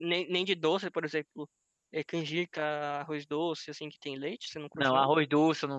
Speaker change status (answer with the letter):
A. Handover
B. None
A